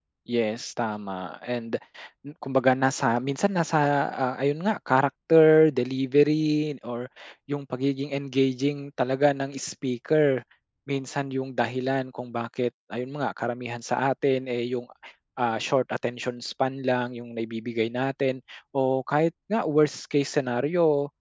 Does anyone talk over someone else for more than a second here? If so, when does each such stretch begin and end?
none

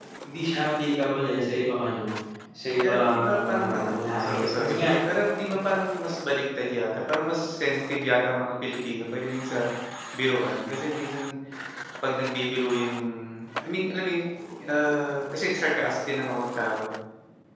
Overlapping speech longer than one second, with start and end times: 2.8-4.9

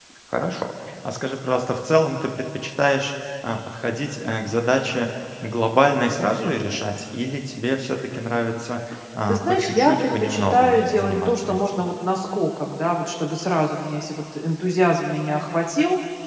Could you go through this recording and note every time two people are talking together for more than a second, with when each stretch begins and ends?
9.3-11.8

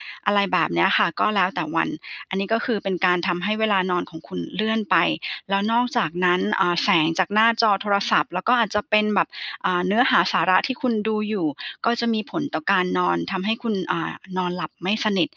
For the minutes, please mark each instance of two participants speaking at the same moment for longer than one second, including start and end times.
none

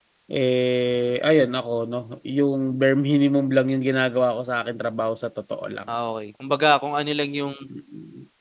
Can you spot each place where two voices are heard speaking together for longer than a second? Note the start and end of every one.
none

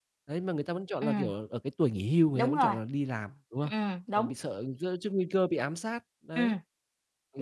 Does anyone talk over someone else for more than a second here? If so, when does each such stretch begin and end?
none

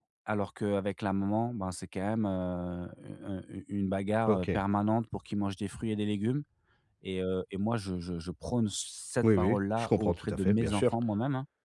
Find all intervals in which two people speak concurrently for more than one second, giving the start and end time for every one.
9.2-10.8

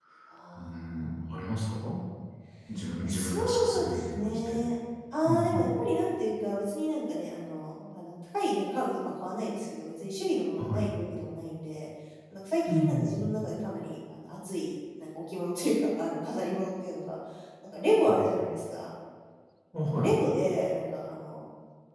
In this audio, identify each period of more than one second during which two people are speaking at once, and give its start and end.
3.0-4.6

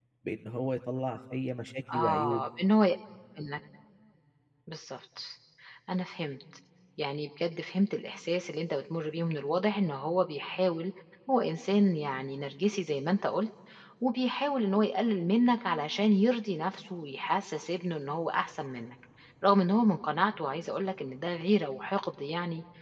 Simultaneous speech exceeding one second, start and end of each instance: none

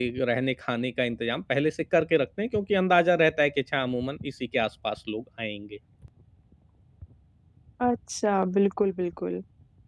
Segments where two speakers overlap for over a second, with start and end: none

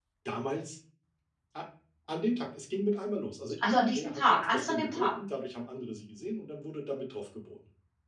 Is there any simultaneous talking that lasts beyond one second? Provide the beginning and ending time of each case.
3.6-5.2

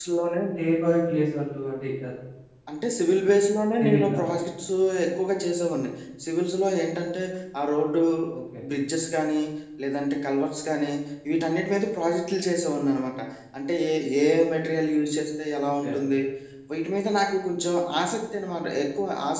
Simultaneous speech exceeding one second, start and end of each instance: none

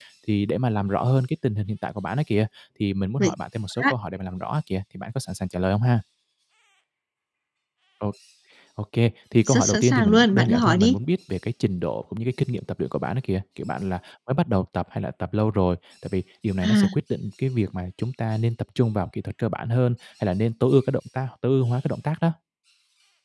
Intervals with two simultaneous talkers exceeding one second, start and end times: 9.4-10.9

